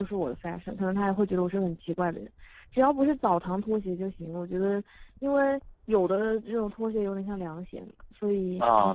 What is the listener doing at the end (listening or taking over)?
taking over